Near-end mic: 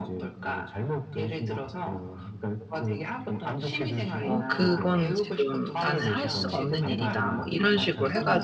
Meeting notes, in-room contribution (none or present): present